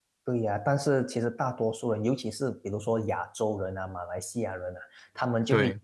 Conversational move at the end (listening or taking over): listening